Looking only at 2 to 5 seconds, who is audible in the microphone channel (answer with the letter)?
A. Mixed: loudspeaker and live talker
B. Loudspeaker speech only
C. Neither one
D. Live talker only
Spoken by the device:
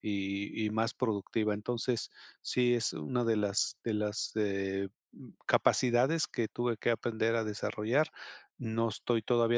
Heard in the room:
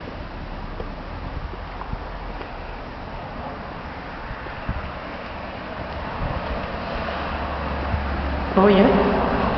C